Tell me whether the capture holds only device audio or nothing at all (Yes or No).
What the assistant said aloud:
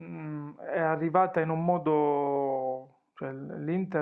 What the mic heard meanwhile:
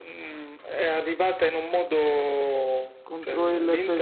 No